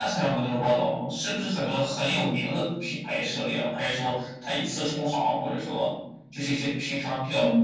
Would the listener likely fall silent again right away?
No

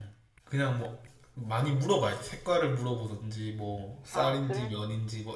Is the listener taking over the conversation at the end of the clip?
No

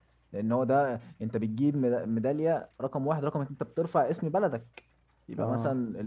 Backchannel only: Yes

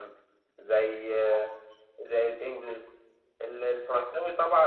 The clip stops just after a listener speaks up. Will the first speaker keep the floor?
Yes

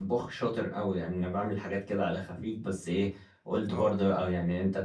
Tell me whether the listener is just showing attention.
Yes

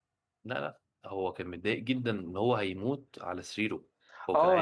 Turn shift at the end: Yes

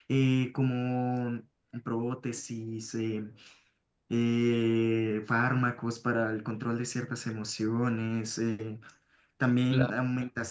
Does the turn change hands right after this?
No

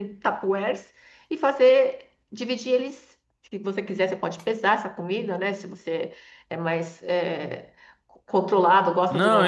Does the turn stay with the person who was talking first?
No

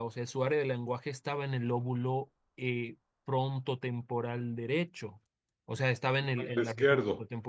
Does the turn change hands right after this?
No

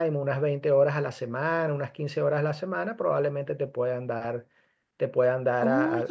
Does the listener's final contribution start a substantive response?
Yes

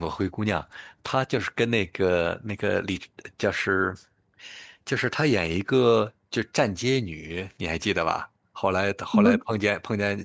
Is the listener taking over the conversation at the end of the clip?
No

